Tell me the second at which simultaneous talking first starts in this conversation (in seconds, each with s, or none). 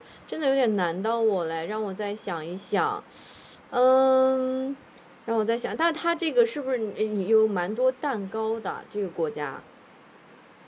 none